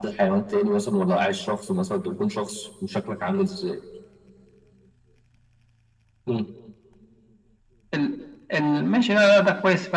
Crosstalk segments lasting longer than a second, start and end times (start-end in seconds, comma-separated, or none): none